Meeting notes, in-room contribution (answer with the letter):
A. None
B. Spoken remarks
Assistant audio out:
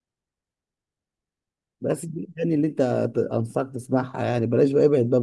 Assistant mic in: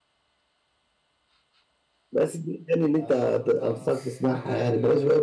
B